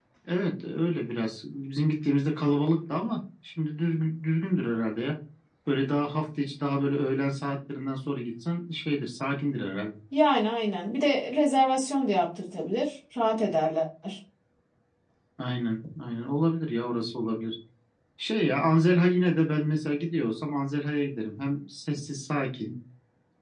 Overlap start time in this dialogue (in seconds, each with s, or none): none